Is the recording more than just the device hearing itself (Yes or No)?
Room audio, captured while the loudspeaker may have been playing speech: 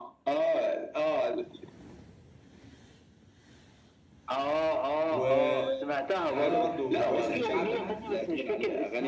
Yes